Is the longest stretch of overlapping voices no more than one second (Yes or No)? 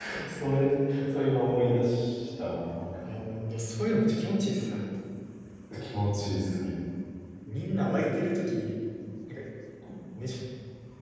Yes